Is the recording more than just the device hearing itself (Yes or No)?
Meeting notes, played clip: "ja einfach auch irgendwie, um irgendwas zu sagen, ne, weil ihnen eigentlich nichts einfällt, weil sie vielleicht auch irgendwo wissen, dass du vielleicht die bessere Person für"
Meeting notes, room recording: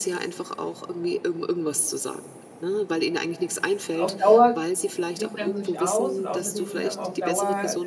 Yes